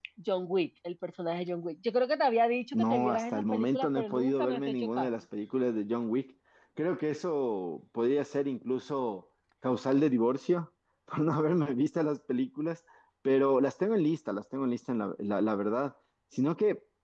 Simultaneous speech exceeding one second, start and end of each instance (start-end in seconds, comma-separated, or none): 2.7-5.1